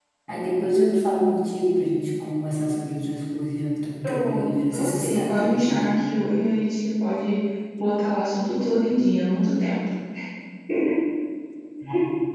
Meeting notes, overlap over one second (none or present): present